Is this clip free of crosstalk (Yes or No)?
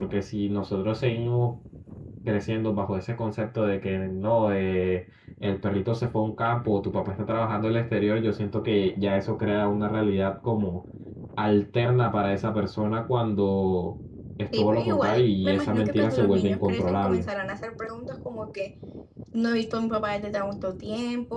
No